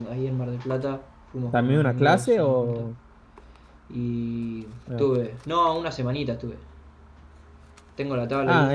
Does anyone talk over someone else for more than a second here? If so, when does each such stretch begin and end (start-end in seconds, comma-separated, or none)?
1.5-2.8